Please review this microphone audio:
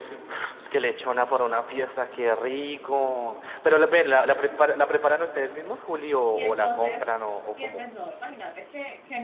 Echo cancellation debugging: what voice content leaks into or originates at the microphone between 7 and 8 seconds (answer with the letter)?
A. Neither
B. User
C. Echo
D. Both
D